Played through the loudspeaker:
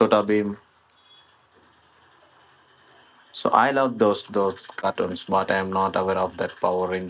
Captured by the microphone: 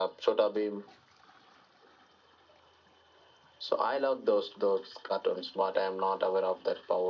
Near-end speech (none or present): none